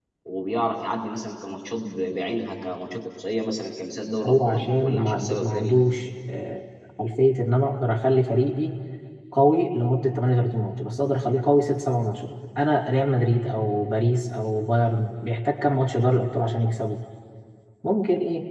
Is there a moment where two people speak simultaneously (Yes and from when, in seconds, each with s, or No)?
Yes, from 4.2 s